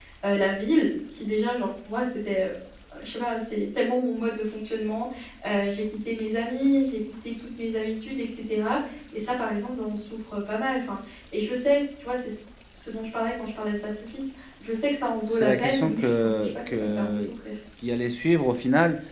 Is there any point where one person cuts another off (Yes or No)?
Yes